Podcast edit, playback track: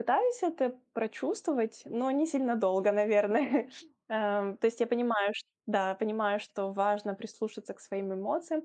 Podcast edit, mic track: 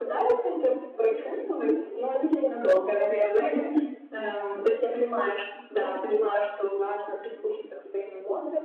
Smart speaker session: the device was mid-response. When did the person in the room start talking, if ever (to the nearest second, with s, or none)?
none